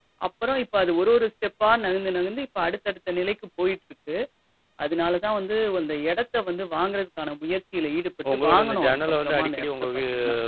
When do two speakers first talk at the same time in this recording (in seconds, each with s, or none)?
8.2 s